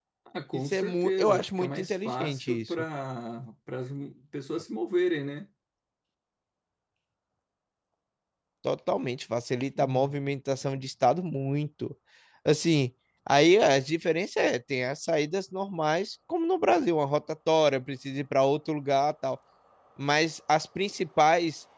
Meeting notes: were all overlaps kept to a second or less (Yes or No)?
No